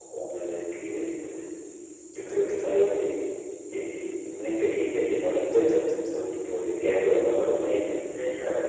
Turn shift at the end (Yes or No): Yes